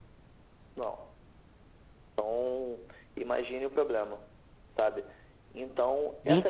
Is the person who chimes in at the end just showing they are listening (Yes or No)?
No